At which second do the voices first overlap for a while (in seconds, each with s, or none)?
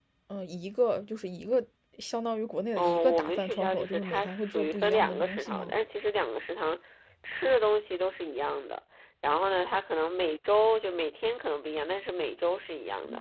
2.8 s